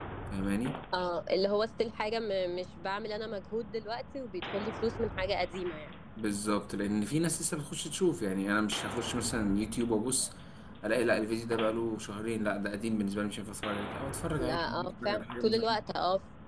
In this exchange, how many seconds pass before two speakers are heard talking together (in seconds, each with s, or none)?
14.4 s